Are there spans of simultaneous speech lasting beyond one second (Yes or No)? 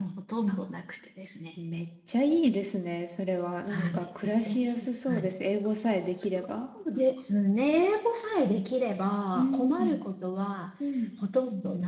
Yes